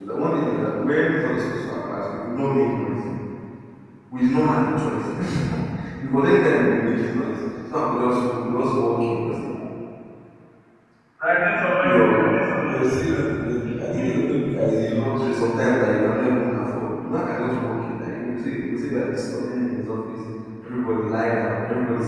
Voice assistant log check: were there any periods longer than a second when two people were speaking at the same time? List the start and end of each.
11.8-13.2

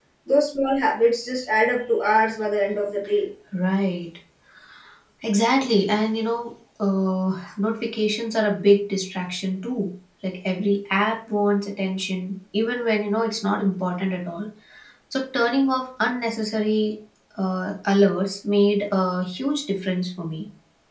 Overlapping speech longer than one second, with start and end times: none

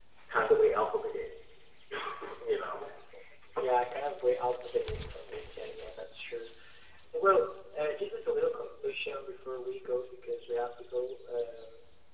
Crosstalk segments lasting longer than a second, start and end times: none

